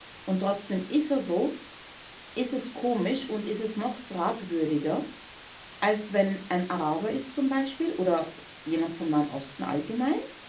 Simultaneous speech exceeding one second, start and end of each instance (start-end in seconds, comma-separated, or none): none